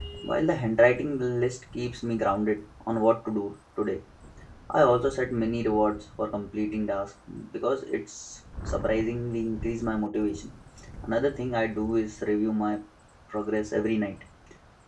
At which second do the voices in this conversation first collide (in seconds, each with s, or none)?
none